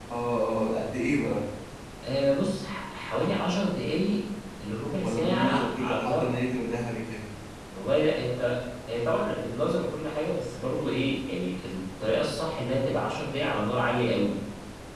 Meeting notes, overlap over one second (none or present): present